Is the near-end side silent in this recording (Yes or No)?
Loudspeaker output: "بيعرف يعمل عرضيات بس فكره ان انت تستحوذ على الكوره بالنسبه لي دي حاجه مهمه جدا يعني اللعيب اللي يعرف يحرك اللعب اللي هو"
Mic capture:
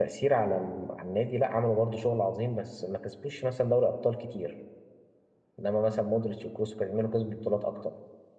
No